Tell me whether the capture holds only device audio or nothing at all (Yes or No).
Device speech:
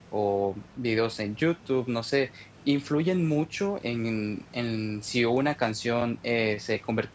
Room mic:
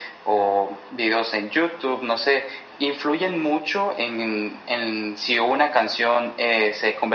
Yes